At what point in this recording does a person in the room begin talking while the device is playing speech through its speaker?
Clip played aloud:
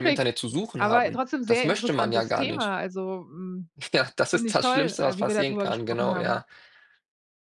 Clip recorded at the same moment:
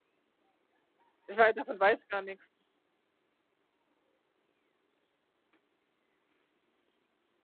1.3 s

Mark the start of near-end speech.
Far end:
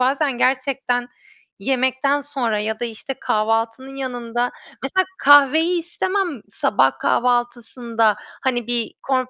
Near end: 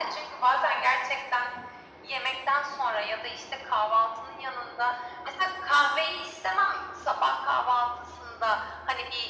none

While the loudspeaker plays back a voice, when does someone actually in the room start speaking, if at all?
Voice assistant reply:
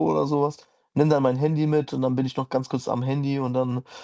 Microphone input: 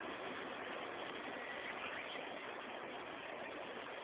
none

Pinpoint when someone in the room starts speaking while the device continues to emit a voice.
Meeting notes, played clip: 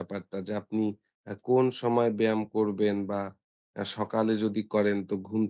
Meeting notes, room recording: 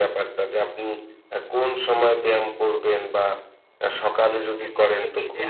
4.5 s

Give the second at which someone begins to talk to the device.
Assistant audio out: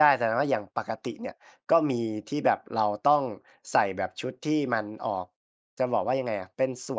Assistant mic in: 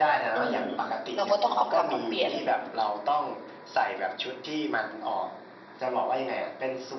0.4 s

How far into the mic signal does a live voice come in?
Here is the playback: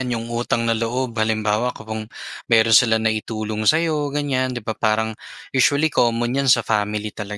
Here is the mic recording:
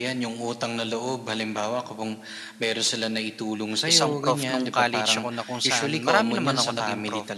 3.8 s

